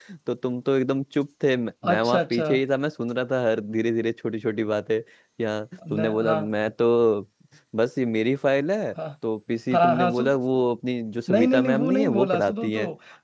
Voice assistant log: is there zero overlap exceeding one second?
No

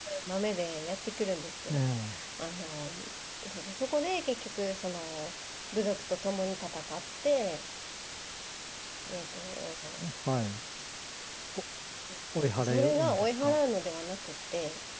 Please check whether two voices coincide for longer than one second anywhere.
Yes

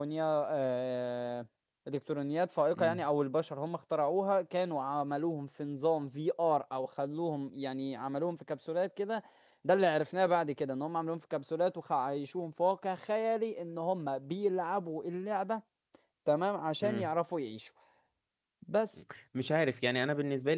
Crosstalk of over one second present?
No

